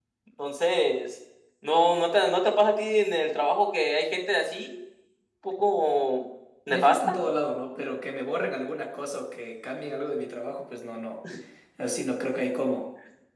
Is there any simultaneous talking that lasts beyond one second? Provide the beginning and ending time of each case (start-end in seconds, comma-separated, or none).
none